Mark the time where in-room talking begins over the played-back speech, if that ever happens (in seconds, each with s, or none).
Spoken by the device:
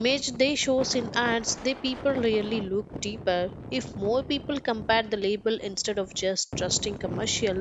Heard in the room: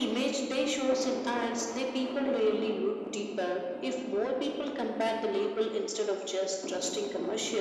none